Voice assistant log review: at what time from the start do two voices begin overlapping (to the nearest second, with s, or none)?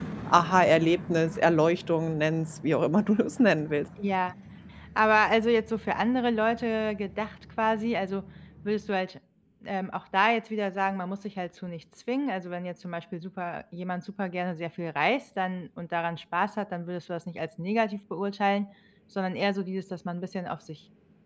none